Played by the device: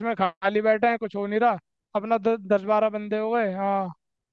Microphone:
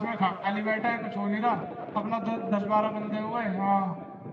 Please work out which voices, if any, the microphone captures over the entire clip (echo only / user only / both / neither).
echo only